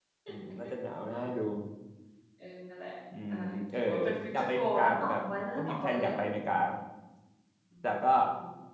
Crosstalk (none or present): present